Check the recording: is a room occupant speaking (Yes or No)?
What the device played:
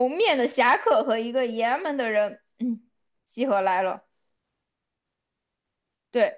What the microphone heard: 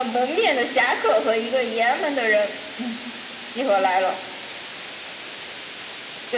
No